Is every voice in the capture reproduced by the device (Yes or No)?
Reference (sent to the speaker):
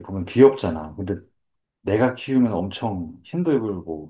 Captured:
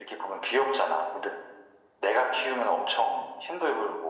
Yes